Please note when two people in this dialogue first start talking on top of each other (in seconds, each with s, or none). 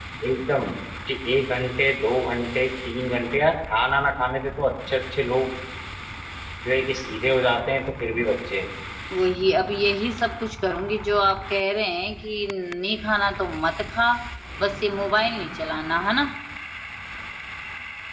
none